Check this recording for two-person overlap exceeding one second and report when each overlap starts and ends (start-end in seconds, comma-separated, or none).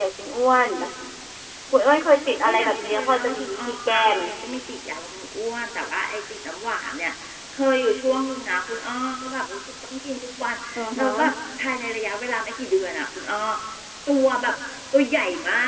2.4-4.2